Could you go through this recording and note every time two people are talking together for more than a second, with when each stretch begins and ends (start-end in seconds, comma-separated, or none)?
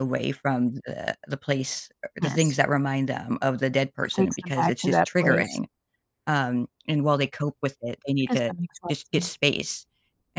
4.1-5.6